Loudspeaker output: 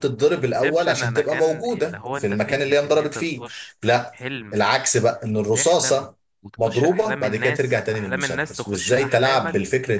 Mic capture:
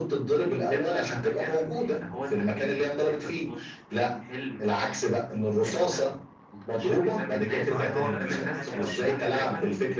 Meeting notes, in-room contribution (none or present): present